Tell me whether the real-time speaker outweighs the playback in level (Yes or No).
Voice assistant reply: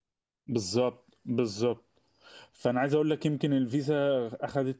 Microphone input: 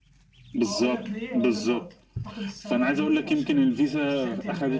No